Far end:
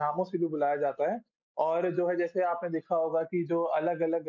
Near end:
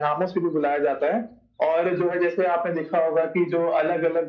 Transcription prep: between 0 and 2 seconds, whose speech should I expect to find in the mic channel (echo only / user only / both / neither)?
echo only